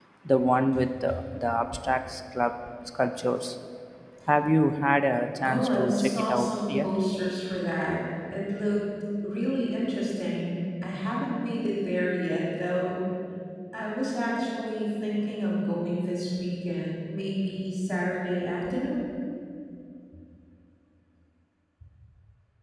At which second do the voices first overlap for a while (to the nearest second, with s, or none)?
5 s